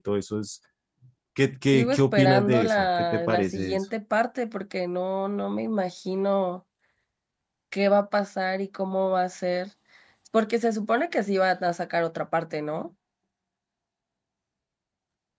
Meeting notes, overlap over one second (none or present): present